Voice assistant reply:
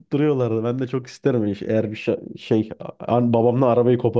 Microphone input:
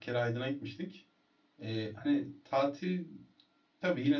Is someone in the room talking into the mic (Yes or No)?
Yes